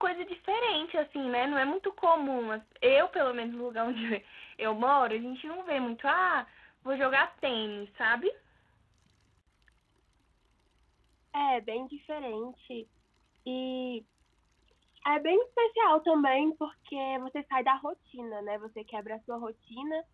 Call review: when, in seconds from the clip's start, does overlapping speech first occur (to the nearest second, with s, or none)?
none